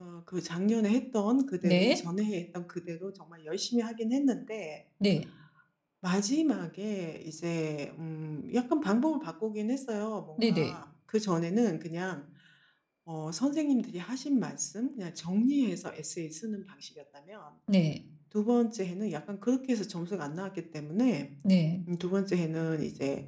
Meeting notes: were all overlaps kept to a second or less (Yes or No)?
Yes